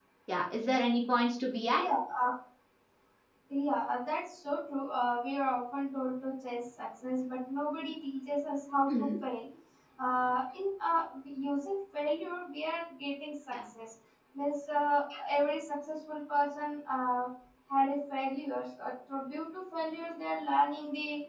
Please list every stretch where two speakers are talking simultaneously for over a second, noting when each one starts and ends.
none

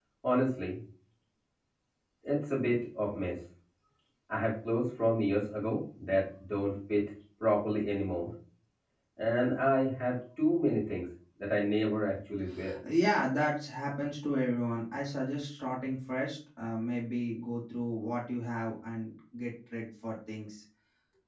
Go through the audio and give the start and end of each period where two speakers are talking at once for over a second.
none

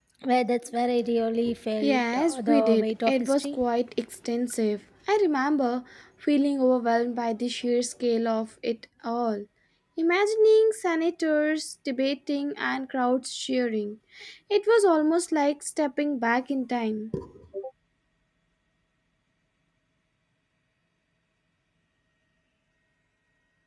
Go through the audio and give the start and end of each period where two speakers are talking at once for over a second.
1.8-3.6

